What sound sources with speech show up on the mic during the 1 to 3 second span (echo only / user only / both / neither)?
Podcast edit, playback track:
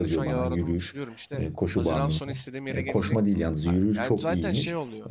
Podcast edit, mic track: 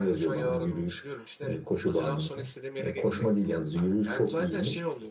echo only